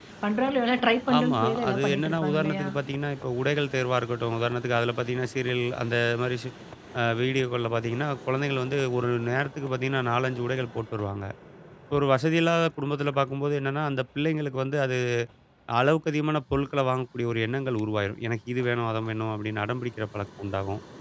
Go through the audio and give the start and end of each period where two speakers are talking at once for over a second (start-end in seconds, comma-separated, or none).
1.2-2.7